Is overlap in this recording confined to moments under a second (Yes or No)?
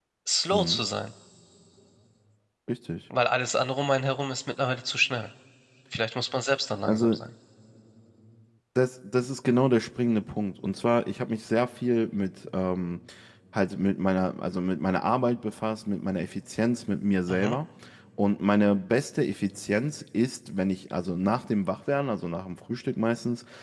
Yes